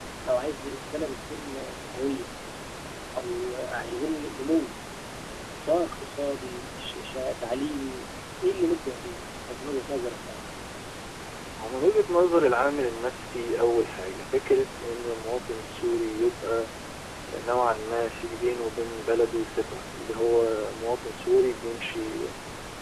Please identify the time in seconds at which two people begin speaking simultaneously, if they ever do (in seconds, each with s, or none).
none